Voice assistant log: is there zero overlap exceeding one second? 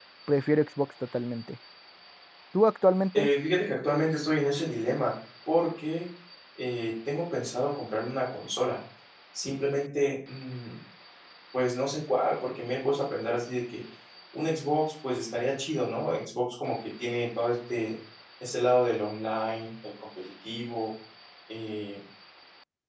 Yes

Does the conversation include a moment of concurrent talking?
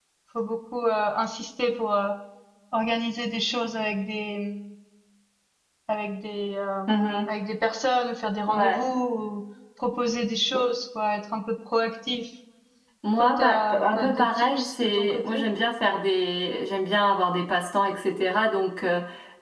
Yes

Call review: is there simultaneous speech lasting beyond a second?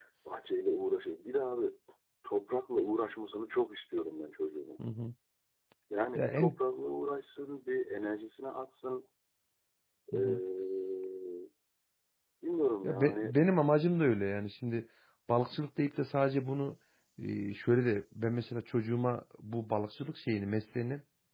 No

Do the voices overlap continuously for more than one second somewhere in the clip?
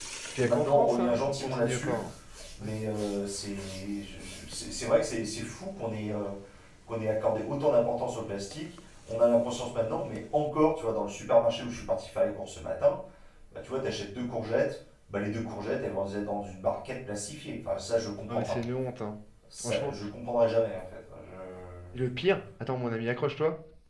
Yes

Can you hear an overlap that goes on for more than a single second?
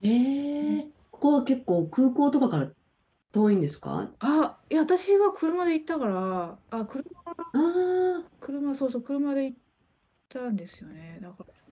No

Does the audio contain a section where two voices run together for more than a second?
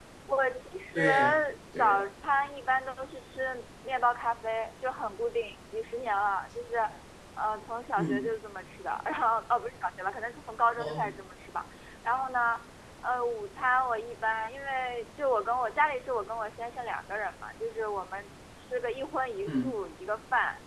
No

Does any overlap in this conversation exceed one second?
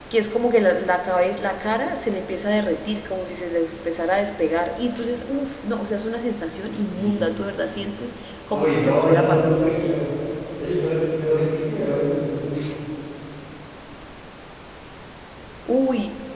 Yes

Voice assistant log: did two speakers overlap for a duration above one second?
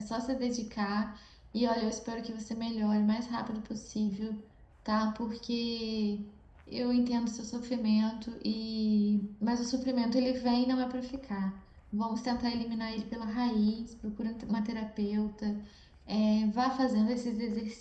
No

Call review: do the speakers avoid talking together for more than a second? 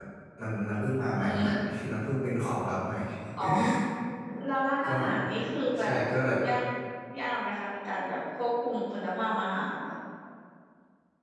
Yes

